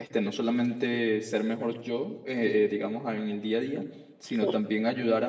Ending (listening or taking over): listening